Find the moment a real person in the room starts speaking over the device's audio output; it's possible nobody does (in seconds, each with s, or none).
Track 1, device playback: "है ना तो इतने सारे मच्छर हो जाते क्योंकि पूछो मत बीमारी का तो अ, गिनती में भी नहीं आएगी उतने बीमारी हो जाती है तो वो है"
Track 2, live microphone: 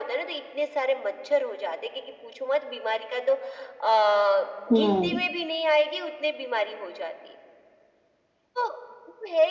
4.7 s